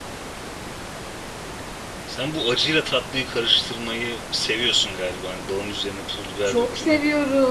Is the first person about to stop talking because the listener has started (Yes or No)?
Yes